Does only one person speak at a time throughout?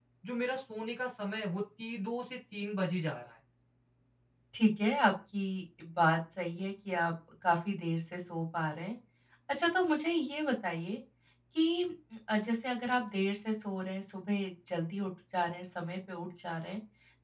Yes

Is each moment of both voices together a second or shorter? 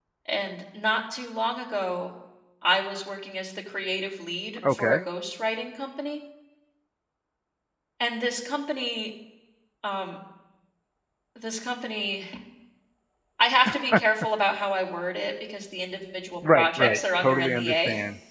No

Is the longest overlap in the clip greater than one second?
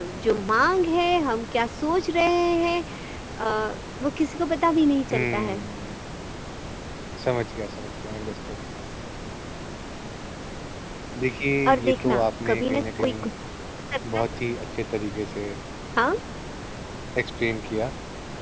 Yes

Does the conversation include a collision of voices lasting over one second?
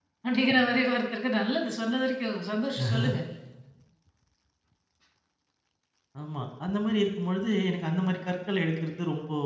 No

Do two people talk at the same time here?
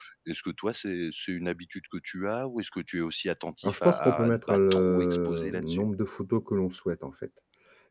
Yes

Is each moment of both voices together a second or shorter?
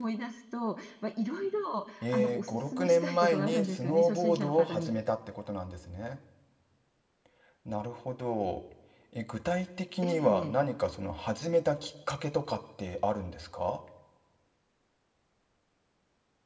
No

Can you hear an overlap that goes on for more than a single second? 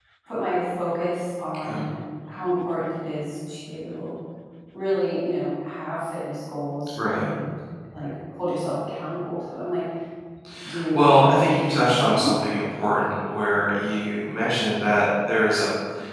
Yes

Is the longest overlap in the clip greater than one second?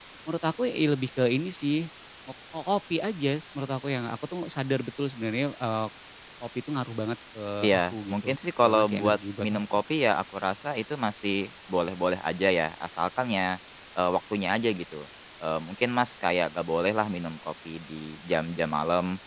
Yes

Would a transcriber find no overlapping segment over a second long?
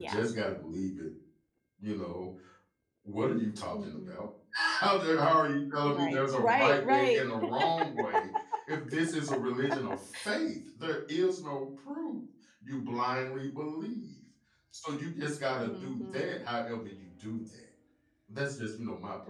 No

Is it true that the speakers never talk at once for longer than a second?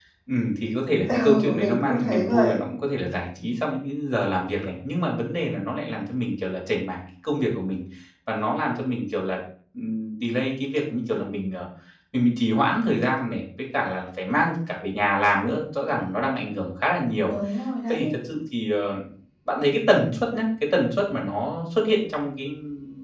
No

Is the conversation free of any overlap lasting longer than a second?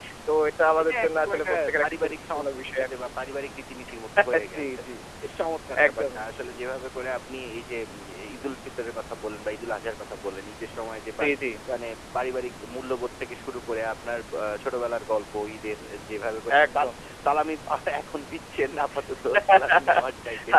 No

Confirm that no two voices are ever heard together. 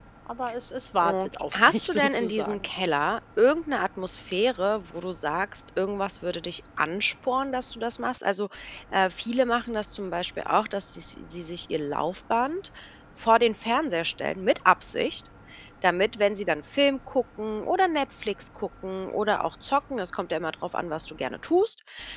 No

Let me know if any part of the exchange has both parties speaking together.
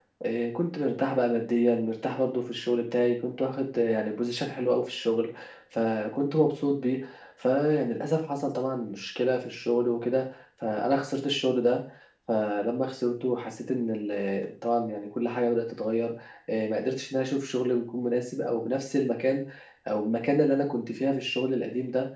No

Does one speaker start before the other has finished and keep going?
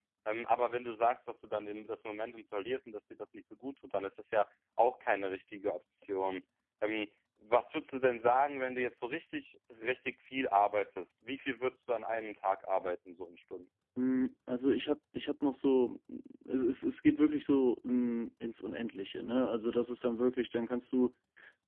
No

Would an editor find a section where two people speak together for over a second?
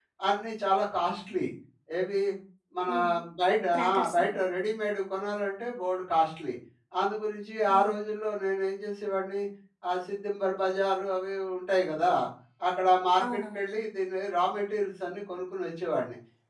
No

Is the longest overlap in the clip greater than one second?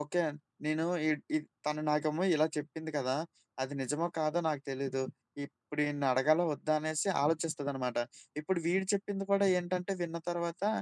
No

